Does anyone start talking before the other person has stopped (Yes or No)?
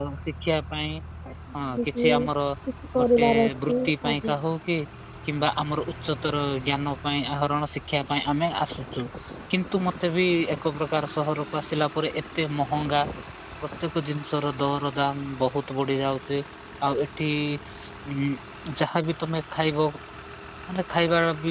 Yes